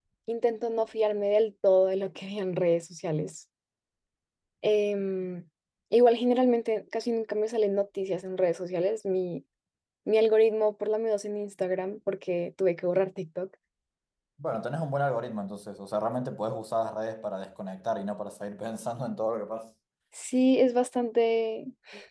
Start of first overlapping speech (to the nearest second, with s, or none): none